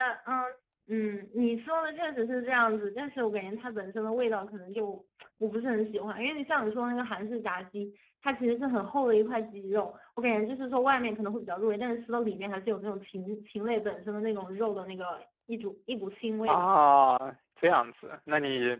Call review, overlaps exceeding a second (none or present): none